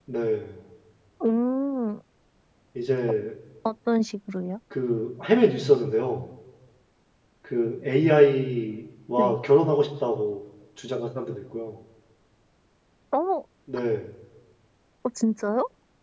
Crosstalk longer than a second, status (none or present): none